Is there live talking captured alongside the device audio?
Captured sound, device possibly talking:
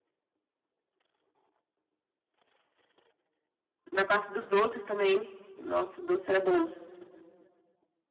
Yes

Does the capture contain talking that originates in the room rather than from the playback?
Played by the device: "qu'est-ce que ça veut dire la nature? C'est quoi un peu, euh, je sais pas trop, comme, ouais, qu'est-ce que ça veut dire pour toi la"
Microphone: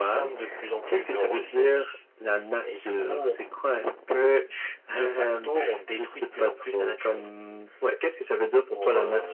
Yes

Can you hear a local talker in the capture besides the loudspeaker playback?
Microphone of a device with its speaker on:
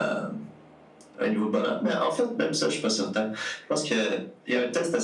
No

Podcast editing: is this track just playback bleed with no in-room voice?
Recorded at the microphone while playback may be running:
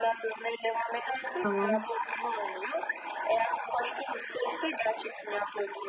No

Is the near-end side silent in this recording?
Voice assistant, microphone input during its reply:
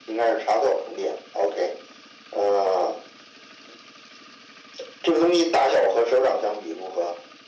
Yes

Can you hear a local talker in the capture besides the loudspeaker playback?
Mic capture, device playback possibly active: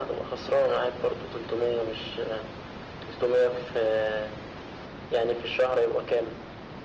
No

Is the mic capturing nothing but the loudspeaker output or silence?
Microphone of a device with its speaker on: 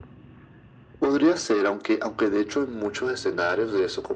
Yes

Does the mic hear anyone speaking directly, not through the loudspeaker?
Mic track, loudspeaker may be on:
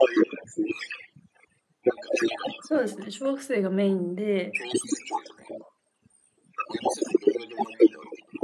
Yes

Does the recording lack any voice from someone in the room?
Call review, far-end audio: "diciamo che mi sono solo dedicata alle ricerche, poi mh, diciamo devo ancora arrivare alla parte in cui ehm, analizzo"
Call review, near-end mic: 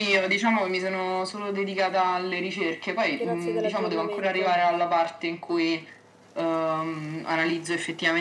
No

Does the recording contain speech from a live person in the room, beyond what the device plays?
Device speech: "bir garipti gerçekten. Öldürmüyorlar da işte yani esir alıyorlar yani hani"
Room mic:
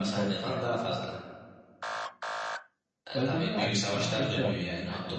Yes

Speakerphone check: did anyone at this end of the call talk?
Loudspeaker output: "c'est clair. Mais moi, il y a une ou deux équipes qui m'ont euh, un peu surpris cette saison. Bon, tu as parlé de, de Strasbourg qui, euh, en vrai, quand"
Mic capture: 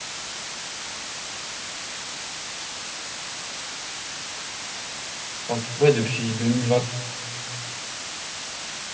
Yes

